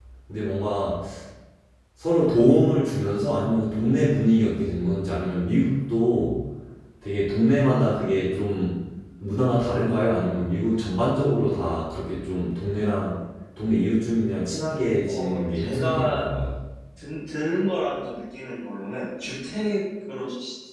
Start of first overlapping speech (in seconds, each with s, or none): 15.1 s